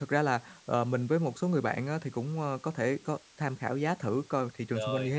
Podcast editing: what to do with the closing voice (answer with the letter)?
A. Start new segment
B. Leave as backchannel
B